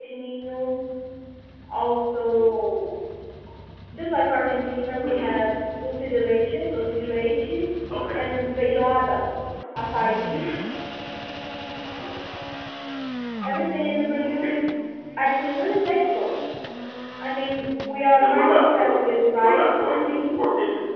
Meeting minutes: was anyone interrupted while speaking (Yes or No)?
Yes